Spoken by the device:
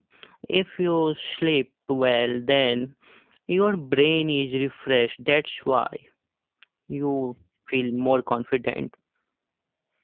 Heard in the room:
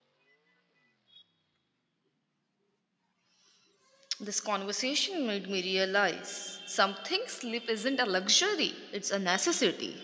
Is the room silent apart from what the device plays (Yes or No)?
No